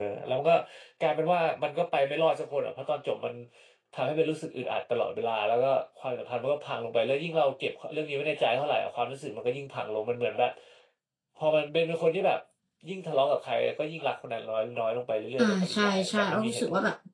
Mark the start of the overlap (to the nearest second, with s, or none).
15 s